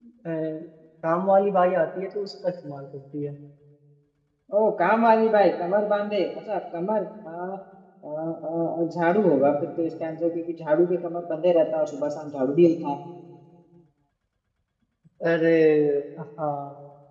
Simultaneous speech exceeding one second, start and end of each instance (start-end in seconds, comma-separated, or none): none